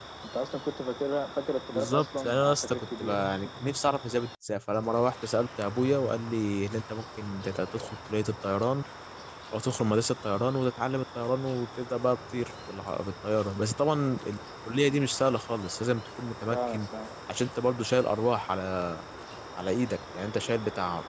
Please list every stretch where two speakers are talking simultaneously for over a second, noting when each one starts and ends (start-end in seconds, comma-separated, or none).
1.7-3.3